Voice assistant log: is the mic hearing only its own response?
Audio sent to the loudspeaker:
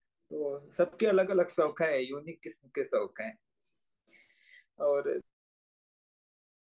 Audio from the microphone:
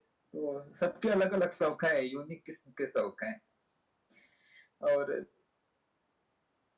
Yes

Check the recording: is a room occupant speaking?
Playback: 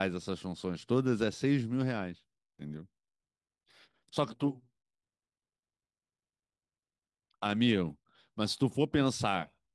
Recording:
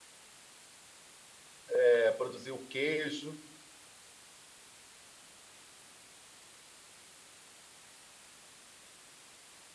Yes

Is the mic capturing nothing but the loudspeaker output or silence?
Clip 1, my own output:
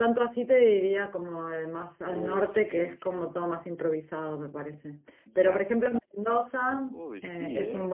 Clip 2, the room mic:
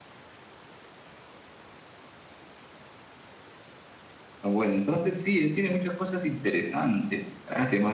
No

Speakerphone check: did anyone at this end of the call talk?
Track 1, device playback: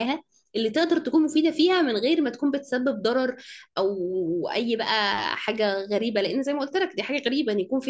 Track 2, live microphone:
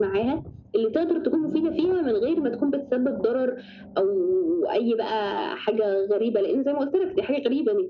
No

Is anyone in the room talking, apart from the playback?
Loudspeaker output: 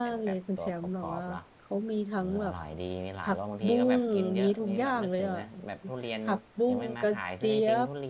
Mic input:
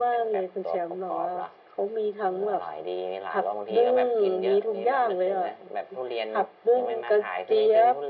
No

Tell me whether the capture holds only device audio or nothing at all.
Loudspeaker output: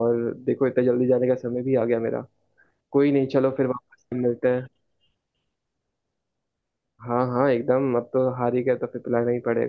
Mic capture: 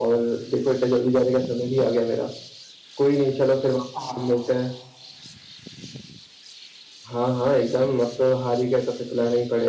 No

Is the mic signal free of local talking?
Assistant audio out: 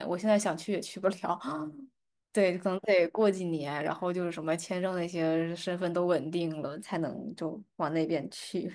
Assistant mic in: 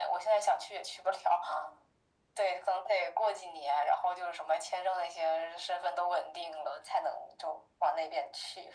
Yes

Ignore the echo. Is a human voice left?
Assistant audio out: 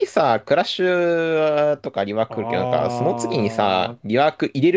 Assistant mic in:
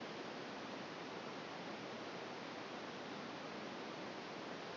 No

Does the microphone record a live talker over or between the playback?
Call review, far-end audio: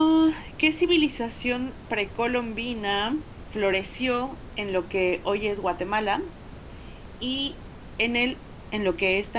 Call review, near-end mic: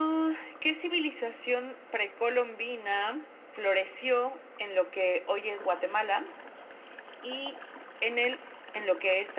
No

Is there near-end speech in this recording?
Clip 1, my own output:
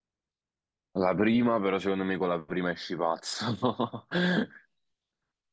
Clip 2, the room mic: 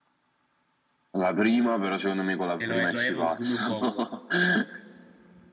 Yes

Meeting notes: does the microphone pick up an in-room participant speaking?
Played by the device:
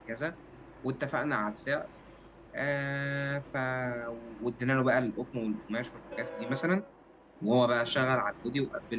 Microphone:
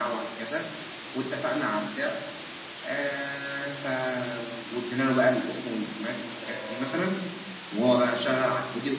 No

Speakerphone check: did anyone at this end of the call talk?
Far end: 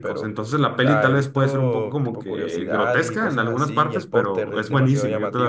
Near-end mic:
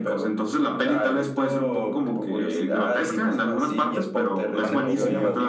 Yes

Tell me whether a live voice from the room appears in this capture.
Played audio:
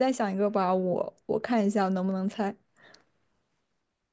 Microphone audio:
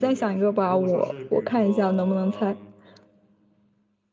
Yes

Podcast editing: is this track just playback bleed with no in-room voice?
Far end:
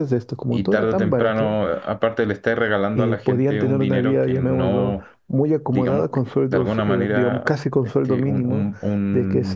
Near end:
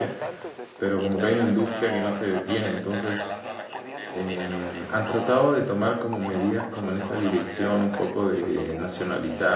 No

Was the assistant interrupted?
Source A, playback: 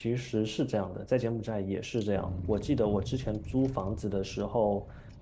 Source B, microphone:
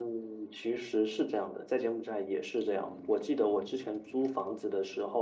No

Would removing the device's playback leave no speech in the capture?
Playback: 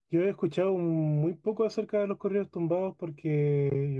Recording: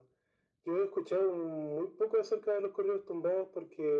Yes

